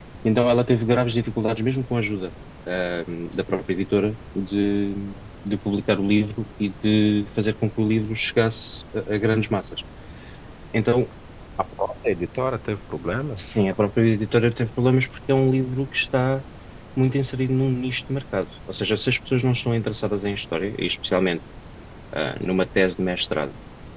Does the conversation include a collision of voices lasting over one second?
No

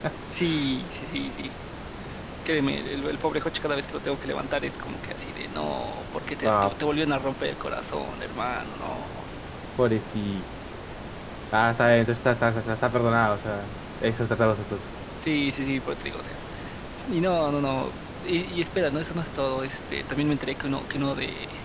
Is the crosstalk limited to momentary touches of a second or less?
Yes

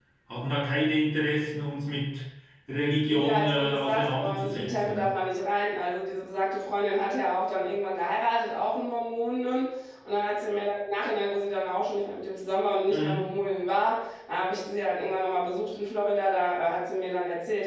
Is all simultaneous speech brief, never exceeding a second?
No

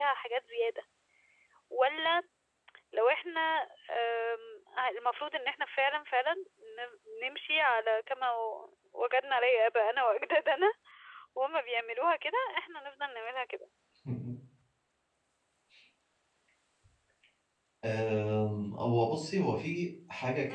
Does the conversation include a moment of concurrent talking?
No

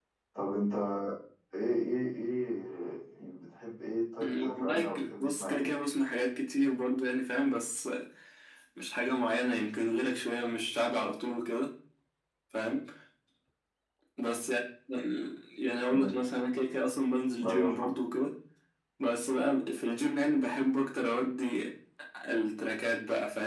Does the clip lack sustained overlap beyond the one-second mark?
No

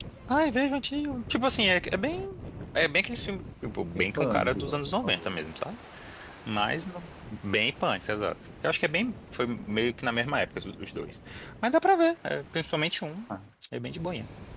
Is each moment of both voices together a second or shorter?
No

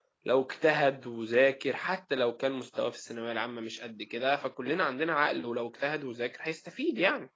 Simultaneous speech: No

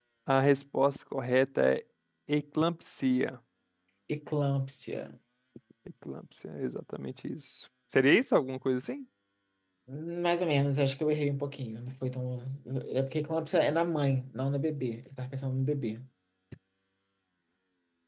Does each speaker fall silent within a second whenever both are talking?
Yes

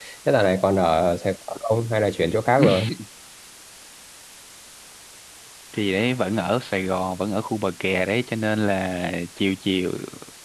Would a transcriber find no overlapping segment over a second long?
Yes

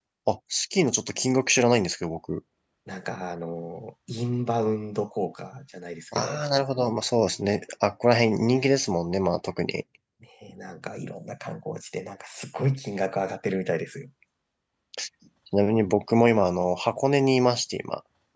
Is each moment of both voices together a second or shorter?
Yes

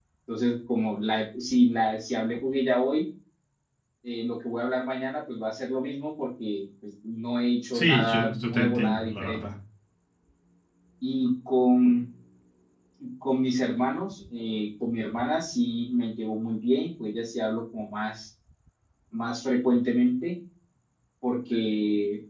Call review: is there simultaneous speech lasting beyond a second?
Yes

